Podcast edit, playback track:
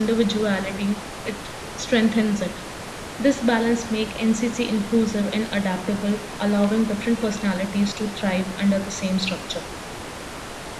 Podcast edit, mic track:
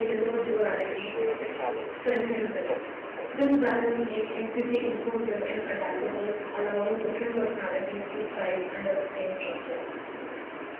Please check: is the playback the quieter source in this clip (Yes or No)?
No